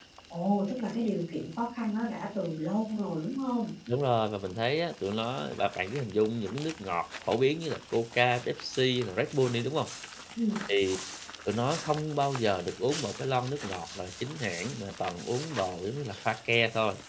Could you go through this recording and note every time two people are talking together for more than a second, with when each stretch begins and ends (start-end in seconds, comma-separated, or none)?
none